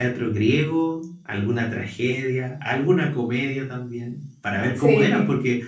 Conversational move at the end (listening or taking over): listening